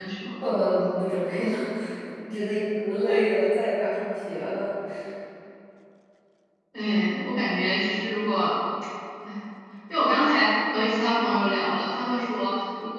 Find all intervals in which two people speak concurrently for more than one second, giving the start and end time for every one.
none

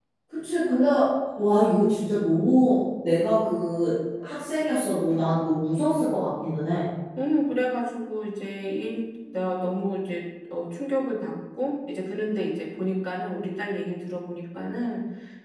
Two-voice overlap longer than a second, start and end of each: none

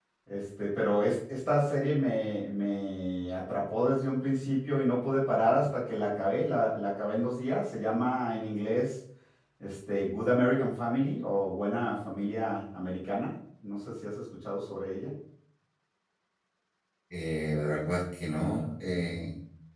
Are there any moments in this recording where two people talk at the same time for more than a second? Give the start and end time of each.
none

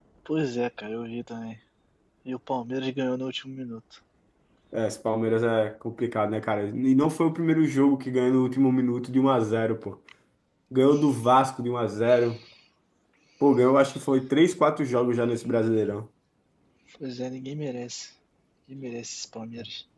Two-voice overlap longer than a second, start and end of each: none

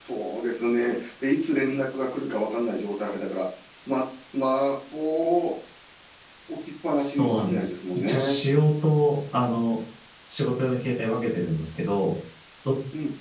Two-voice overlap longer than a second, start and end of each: 7.0-8.4

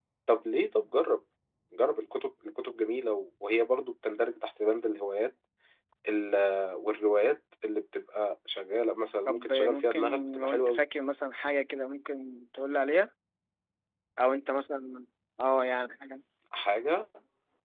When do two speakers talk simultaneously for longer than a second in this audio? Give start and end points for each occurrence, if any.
9.3-10.8

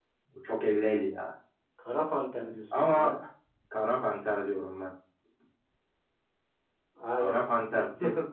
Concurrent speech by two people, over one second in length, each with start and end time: none

